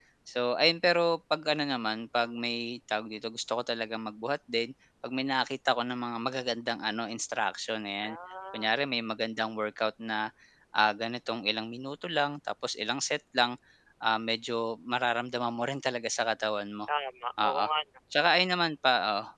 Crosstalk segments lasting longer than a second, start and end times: none

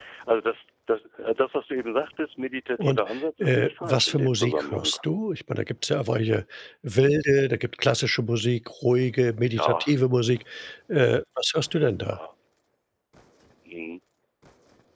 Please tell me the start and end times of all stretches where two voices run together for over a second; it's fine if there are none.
3.4-4.9

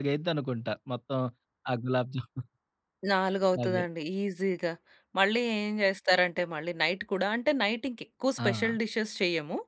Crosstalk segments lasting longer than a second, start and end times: none

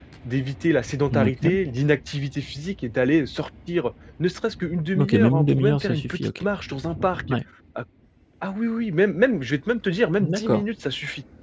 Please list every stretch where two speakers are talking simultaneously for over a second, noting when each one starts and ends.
5.0-6.4

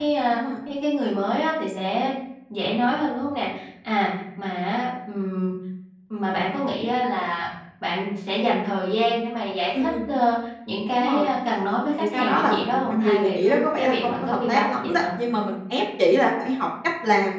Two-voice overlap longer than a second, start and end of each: 12.1-15.0

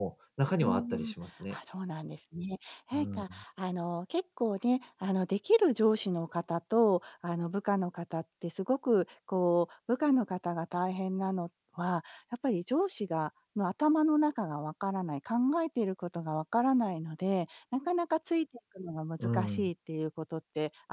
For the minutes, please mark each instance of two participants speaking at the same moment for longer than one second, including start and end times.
none

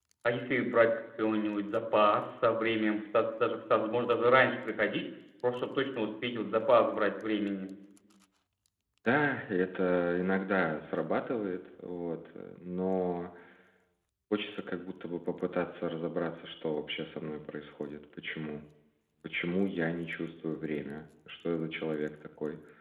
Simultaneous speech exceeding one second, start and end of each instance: none

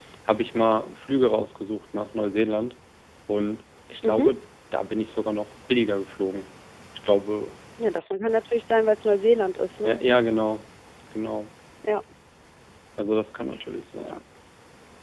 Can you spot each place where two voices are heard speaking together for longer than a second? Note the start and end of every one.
none

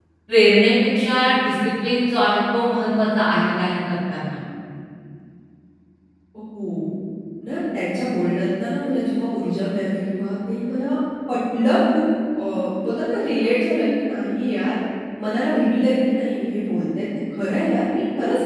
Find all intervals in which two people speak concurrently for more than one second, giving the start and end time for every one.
none

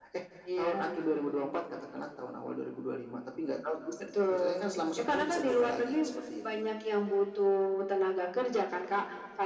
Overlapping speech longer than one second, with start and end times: 4.3-6.0

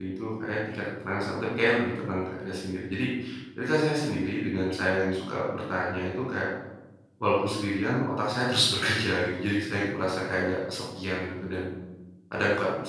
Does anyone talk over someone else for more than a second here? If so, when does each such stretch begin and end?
none

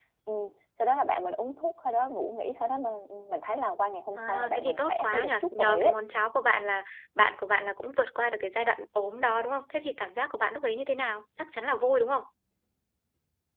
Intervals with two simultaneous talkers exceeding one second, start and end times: 4.2-5.9

